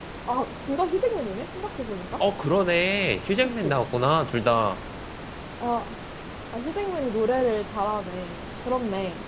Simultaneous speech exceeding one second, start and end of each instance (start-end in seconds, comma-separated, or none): none